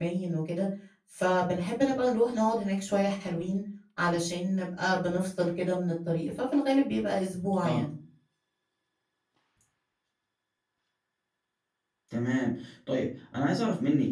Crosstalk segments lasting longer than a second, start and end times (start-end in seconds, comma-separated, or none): none